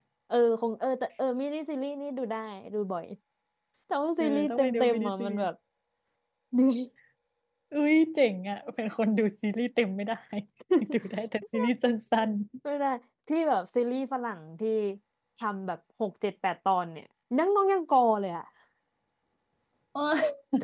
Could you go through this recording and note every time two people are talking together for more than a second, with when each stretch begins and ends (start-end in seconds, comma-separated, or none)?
4.2-5.5